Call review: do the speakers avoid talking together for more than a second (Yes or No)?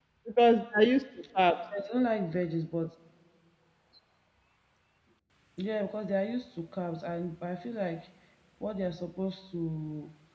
Yes